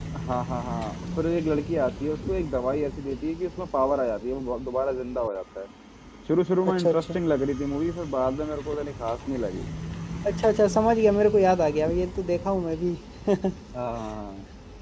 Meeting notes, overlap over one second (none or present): none